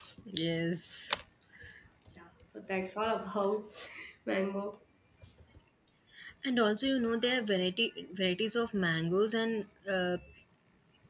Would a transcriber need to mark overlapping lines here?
No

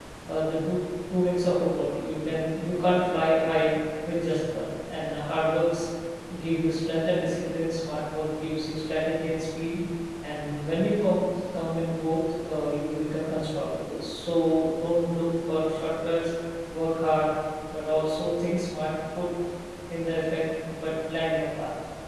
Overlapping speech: No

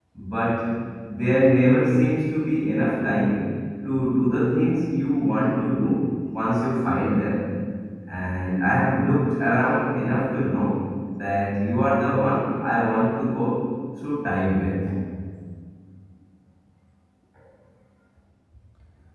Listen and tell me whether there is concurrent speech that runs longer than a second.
No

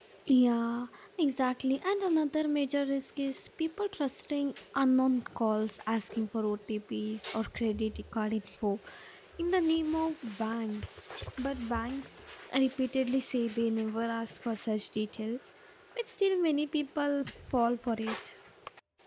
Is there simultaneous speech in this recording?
No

